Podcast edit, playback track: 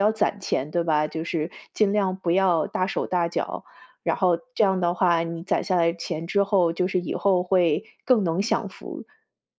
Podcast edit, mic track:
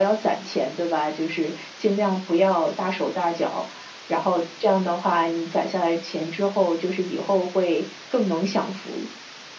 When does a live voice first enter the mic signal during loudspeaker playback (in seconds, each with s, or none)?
none